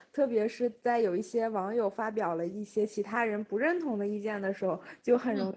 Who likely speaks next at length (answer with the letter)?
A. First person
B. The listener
A